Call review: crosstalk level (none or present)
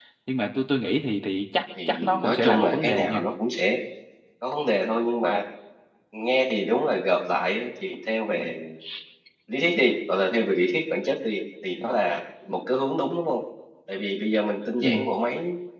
present